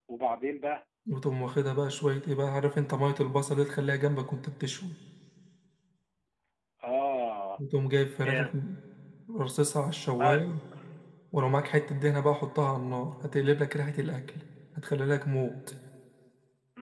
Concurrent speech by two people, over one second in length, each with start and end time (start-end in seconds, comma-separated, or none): none